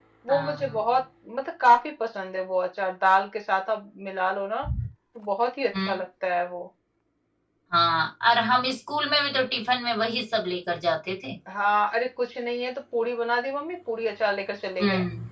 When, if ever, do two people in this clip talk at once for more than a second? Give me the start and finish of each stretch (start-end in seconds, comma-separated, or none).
none